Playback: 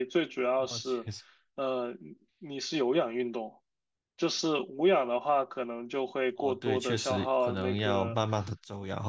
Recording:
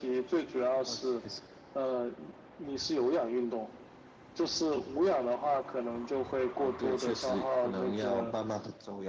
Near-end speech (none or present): none